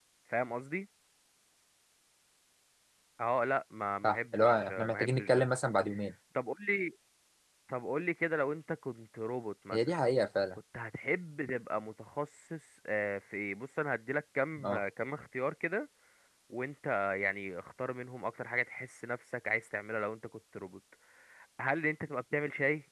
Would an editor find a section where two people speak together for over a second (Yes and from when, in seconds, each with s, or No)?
Yes, from 4.0 s